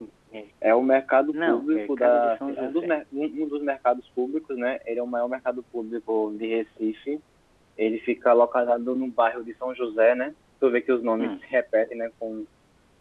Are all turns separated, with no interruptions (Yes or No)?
No